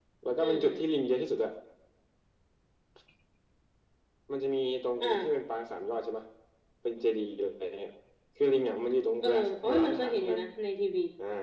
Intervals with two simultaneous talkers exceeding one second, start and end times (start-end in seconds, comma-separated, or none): 9.2-10.4